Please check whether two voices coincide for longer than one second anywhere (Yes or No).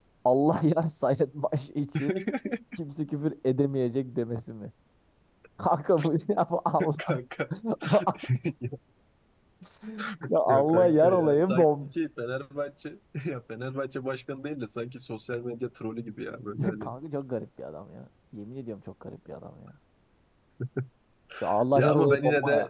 Yes